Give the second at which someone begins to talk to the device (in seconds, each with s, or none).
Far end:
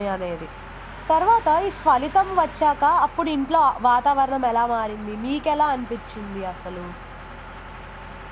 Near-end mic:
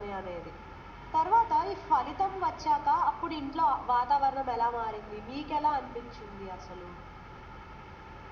none